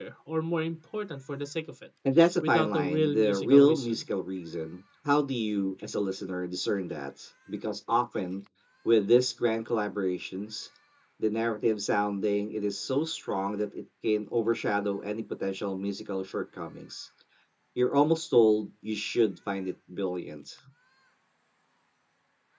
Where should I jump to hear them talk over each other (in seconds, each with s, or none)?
2.4 s